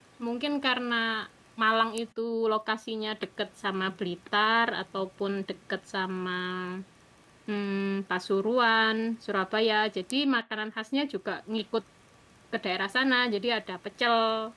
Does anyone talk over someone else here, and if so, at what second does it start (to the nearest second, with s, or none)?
none